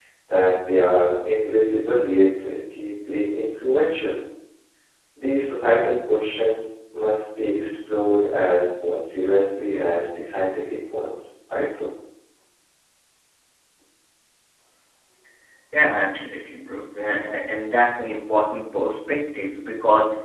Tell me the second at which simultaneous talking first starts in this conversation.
none

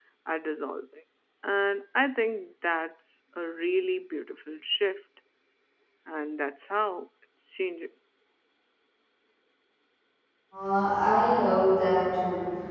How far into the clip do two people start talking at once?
none

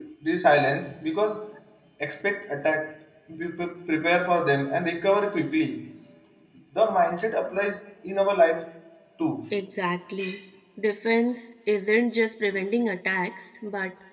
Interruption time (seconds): none

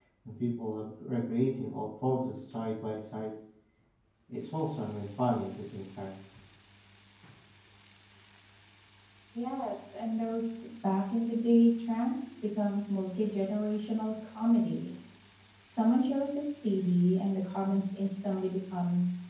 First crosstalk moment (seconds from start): none

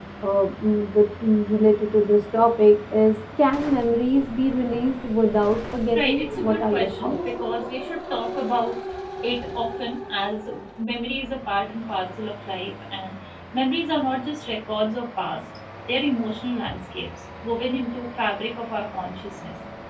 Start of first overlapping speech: 6 s

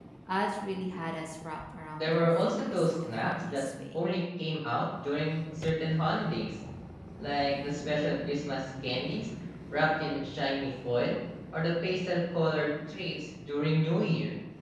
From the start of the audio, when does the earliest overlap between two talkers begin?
2 s

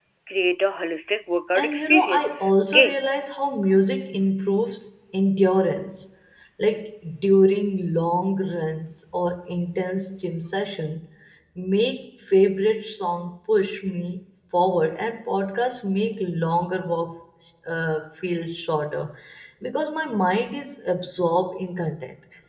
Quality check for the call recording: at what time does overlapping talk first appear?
2 s

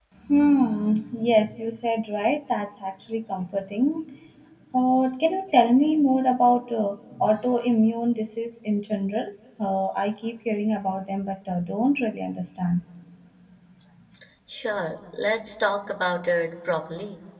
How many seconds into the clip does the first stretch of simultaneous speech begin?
none

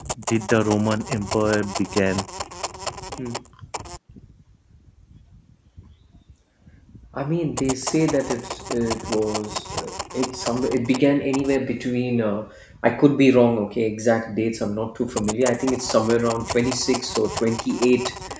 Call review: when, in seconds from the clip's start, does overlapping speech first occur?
none

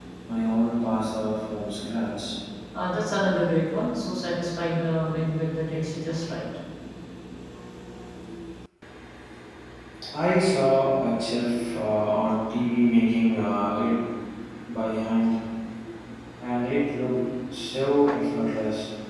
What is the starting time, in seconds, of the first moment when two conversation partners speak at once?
none

